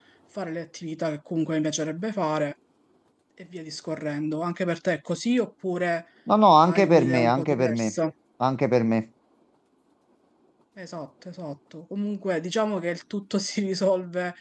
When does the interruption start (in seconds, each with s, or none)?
6.6 s